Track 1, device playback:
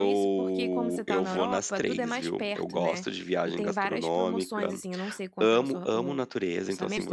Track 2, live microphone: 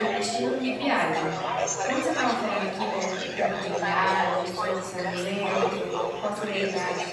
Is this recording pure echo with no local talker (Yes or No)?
No